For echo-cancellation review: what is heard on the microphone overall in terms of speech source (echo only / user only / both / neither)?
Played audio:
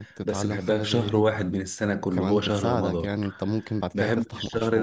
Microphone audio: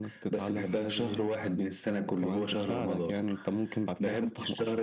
echo only